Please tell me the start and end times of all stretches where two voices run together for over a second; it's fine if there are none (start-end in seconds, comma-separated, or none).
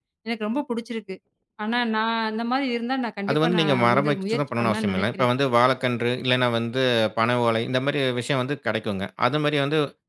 3.3-5.3